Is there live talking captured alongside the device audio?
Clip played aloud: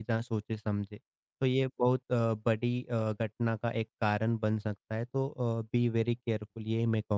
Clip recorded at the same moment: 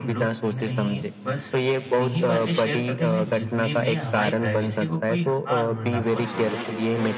Yes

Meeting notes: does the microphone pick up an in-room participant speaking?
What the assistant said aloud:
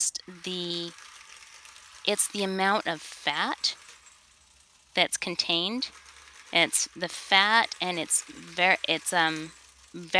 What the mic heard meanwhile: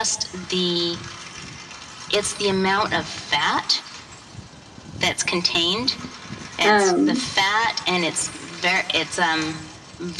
Yes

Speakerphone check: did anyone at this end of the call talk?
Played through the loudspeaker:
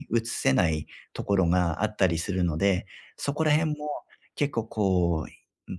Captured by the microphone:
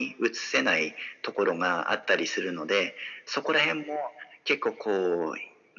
No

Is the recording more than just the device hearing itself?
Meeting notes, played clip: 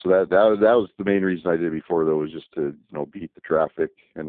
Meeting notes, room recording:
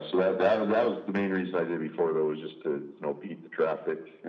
No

